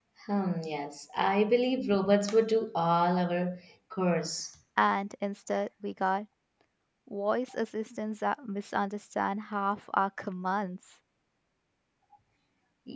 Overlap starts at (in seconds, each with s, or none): none